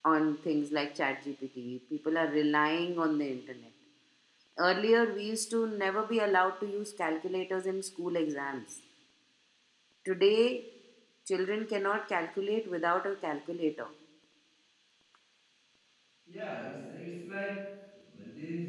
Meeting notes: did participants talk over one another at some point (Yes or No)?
No